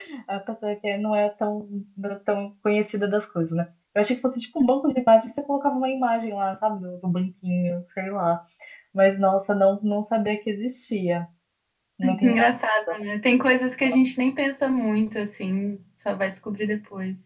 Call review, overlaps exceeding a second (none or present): none